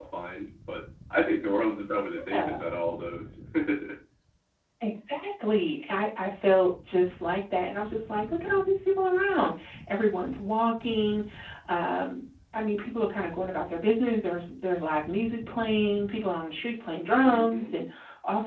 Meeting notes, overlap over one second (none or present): none